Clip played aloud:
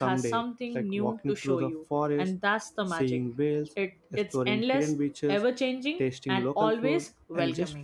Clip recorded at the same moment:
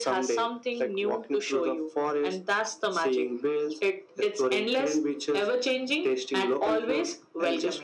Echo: present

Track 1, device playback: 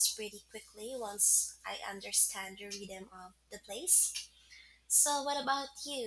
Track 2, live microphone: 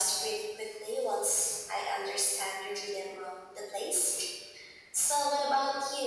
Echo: present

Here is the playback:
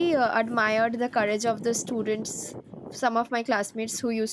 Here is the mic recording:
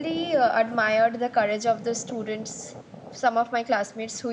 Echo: present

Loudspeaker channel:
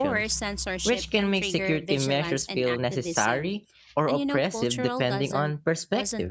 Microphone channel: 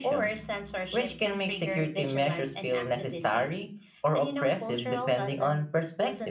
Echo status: present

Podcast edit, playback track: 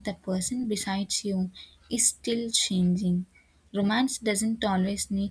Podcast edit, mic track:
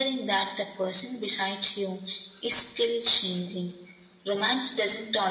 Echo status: present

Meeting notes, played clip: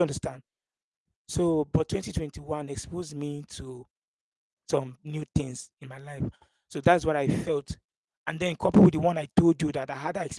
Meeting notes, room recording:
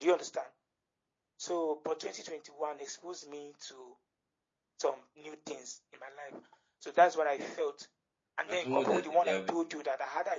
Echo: present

